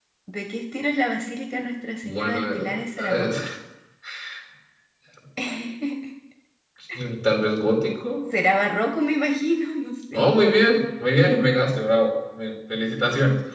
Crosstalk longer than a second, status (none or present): present